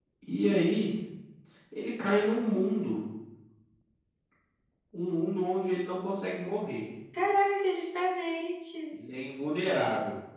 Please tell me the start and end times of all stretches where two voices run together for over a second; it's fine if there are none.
none

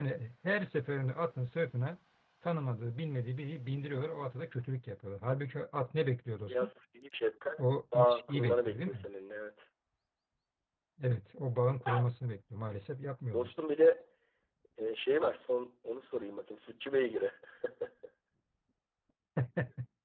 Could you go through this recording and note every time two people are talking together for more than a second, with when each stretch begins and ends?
7.6-9.1

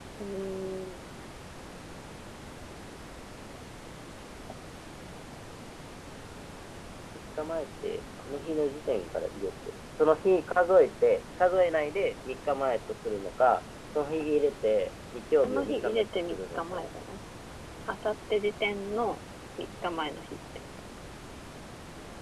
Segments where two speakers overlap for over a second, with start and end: 15.4-16.9

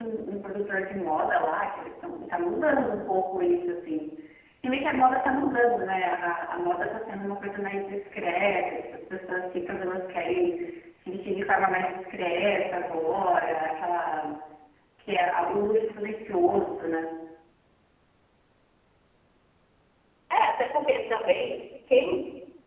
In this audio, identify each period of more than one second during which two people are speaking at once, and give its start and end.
none

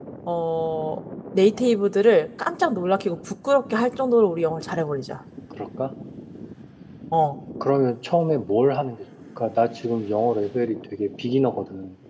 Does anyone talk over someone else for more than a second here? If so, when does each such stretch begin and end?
none

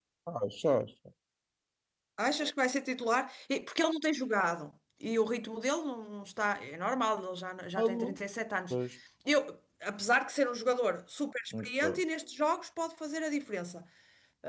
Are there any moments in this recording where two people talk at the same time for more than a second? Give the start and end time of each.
none

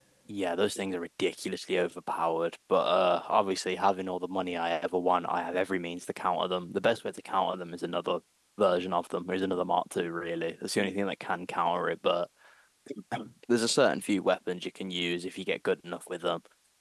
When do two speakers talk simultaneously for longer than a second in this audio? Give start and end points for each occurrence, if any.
none

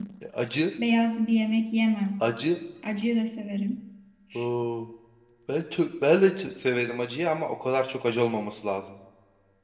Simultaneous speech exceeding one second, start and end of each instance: none

